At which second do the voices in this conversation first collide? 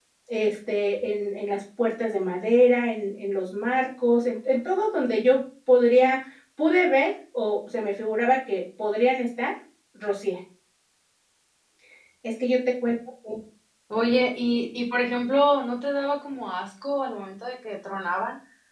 none

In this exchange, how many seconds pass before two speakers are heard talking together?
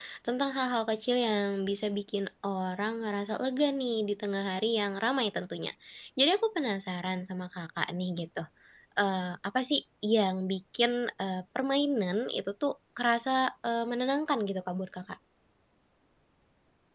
none

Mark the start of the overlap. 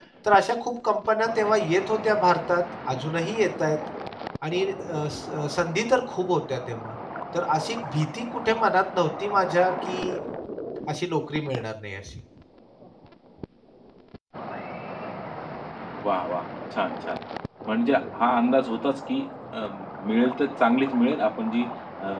none

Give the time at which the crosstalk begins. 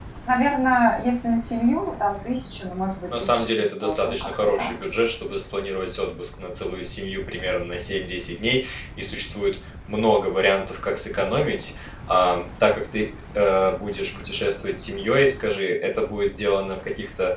3.1 s

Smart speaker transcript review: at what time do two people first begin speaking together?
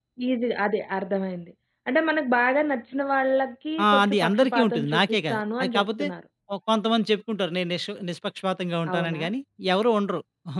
3.8 s

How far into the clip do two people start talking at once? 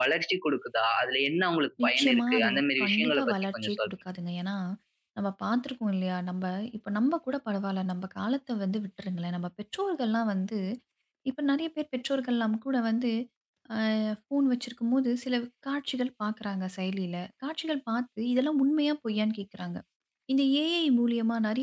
1.8 s

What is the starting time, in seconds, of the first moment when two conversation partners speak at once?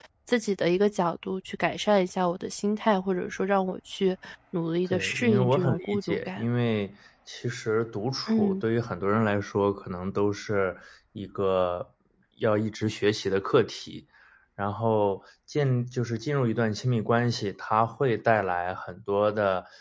4.9 s

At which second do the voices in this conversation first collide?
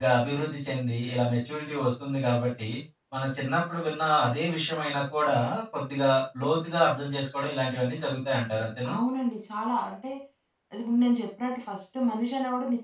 none

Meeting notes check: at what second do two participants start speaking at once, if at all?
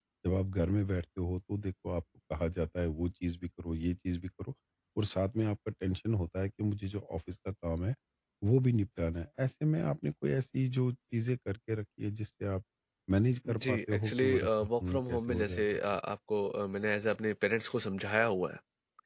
13.5 s

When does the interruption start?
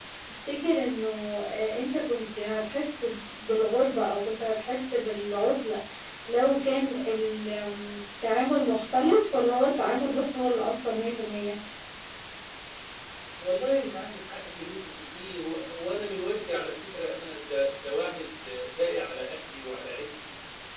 none

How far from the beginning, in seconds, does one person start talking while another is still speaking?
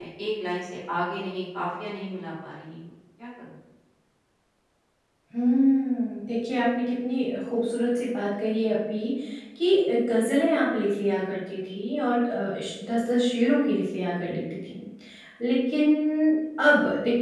none

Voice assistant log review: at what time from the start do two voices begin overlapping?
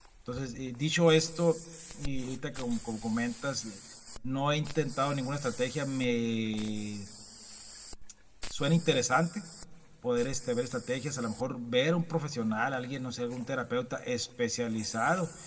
none

